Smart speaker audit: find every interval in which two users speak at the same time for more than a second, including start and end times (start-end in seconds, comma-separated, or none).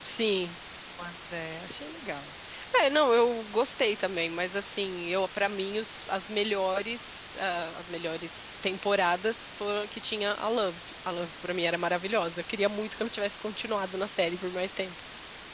none